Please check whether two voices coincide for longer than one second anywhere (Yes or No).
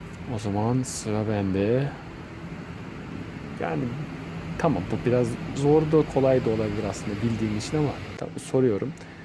No